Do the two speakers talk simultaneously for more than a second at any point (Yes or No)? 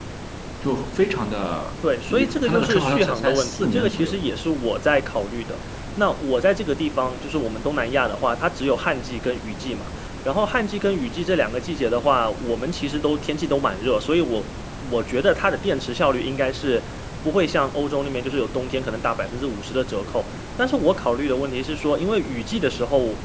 Yes